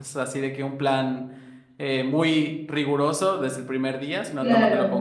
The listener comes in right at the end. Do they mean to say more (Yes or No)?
No